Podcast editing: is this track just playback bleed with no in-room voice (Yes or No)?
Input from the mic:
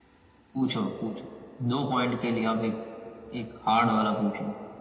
Yes